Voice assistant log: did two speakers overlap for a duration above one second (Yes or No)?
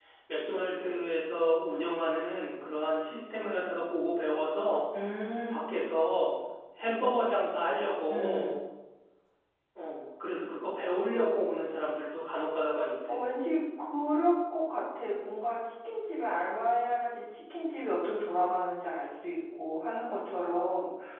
No